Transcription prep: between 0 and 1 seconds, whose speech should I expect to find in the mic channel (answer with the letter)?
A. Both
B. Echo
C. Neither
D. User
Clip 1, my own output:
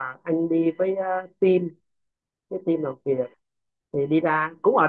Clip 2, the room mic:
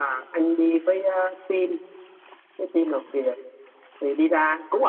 B